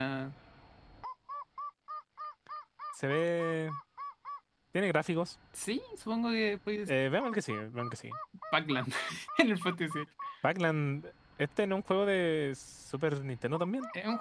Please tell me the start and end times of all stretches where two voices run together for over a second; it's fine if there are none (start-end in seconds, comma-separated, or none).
none